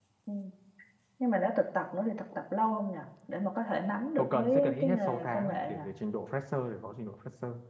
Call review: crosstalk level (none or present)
present